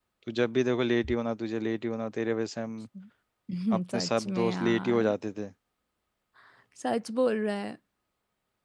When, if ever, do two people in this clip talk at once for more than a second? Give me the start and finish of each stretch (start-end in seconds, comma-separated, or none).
3.9-5.1